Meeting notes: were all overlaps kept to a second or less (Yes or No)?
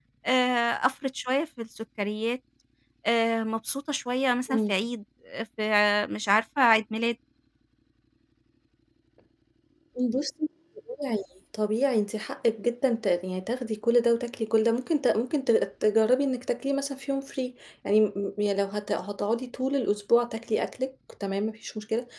Yes